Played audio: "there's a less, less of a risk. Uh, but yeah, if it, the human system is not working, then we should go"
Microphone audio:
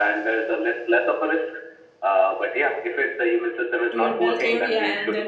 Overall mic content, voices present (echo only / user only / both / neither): both